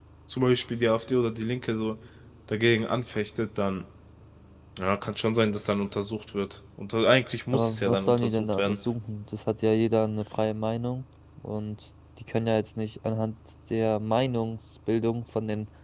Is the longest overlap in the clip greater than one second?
Yes, from 7.5 s

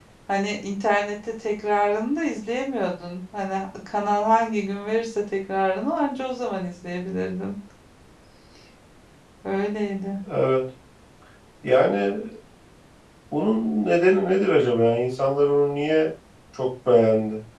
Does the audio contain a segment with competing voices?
No

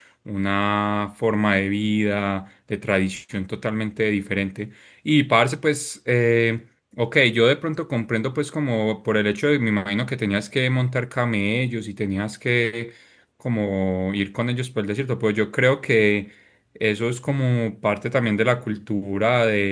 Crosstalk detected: No

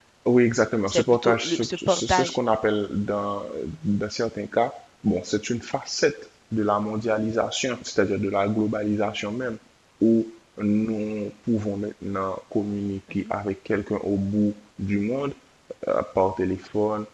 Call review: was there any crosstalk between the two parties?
Yes, from 0.9 s

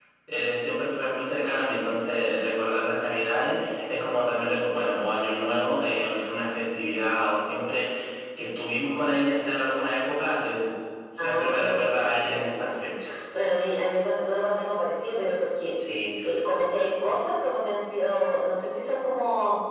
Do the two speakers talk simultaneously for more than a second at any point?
Yes, from 11.2 s

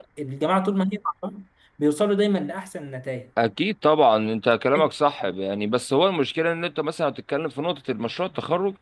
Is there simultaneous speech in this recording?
No

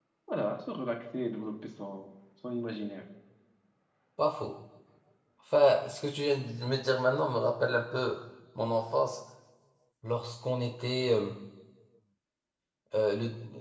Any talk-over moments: No

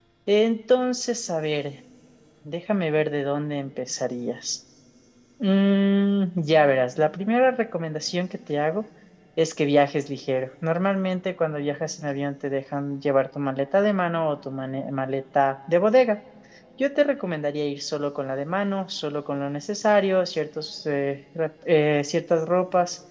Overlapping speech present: No

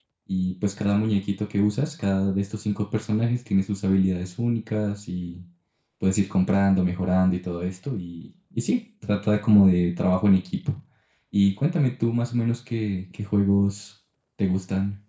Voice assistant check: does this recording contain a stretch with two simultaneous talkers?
No

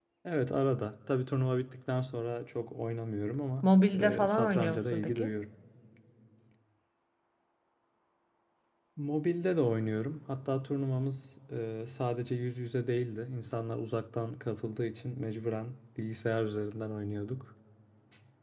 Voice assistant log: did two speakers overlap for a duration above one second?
Yes, from 3.6 s

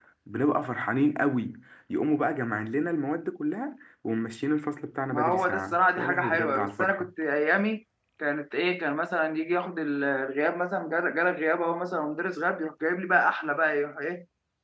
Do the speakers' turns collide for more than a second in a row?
Yes, from 5.1 s

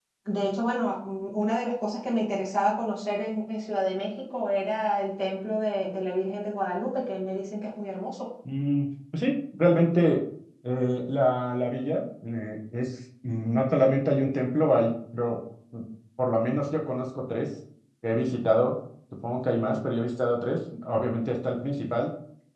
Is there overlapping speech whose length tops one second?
No

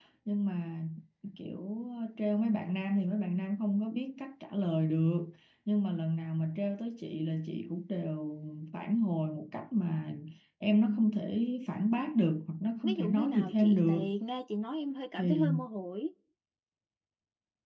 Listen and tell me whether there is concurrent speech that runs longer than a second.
Yes, from 12.8 s

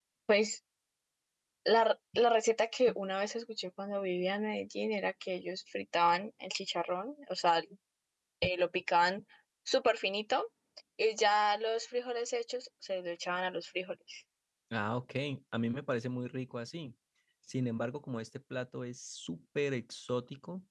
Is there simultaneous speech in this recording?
No

